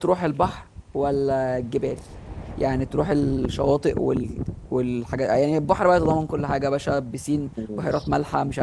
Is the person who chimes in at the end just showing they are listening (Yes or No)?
Yes